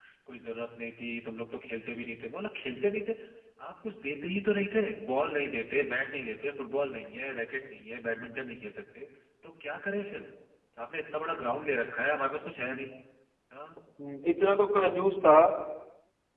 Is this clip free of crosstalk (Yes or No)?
Yes